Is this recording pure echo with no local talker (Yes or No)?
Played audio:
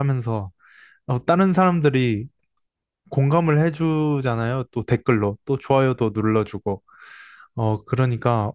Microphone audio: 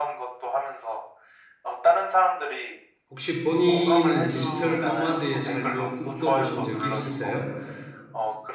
No